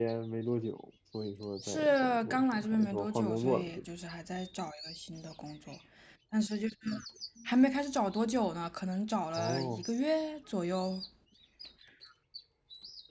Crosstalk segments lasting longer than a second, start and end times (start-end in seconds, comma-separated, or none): 1.6-3.8